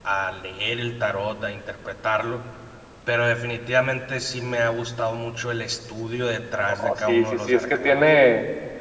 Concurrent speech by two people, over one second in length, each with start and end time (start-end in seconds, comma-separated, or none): 6.7-8.1